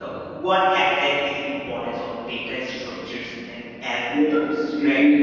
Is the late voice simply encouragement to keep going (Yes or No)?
No